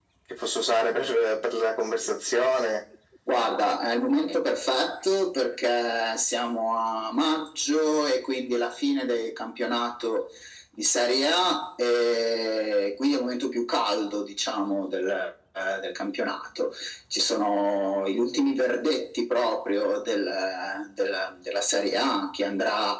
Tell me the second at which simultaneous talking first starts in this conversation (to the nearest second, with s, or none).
none